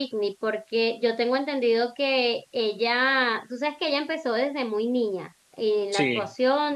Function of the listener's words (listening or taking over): listening